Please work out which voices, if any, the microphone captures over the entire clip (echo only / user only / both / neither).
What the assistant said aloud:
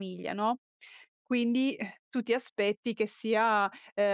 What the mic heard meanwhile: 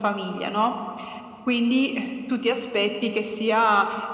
echo only